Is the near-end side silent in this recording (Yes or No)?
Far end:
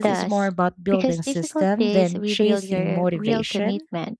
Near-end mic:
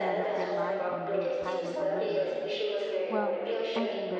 No